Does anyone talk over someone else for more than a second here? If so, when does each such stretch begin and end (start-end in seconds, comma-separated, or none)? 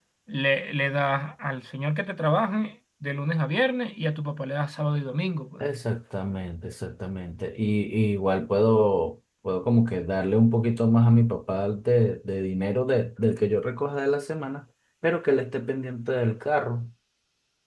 none